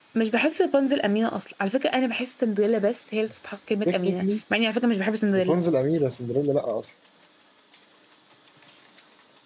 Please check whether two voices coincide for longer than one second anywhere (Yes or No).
No